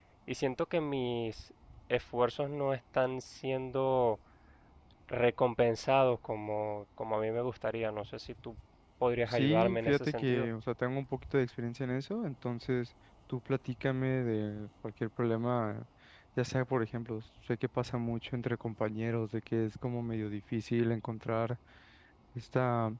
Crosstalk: present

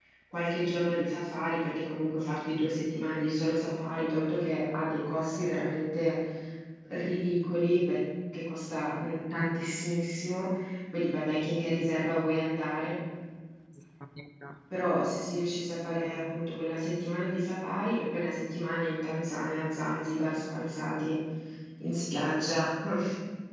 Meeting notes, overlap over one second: none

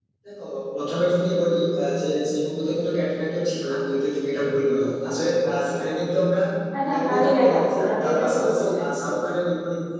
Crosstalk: present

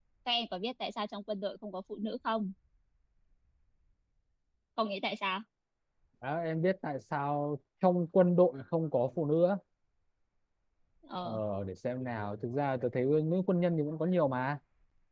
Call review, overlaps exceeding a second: none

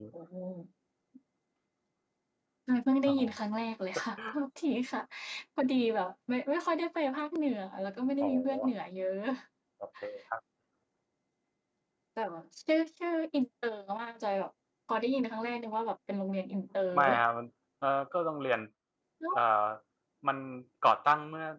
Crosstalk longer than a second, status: none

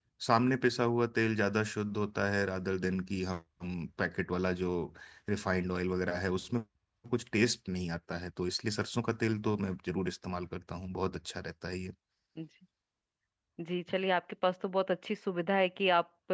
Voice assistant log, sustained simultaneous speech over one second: none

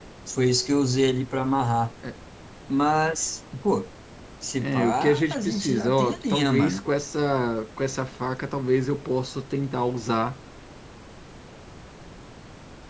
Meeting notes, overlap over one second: present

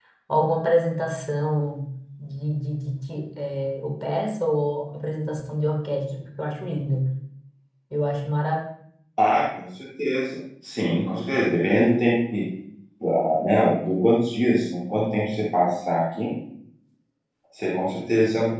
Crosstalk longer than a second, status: none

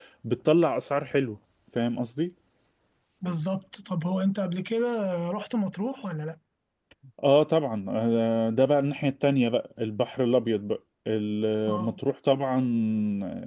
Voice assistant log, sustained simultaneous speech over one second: none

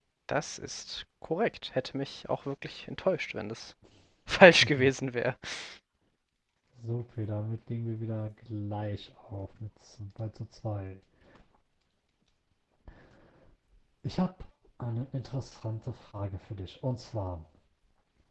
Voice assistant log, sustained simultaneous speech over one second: none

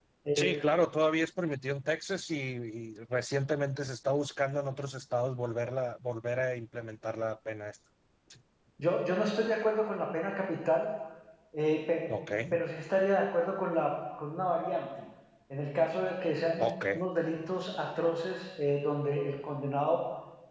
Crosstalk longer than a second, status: none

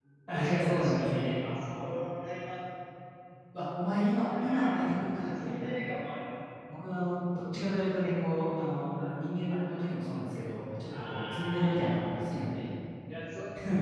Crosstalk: present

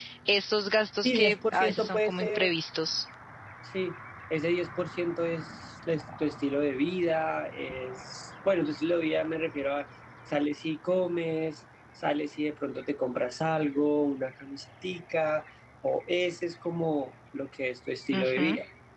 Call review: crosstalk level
present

